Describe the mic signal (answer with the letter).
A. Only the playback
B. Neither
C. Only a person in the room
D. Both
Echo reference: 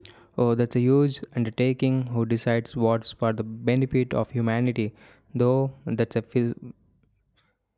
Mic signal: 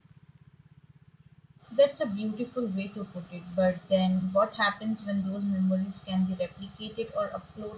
C